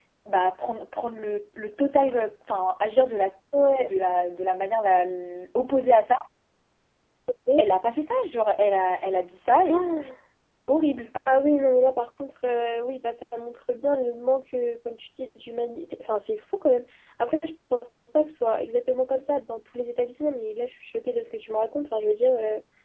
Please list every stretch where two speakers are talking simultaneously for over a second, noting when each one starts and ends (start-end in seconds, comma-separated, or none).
none